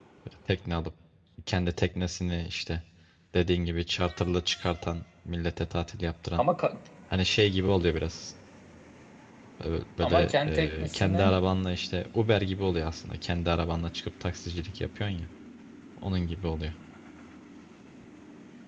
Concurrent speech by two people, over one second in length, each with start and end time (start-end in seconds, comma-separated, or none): 10.0-11.3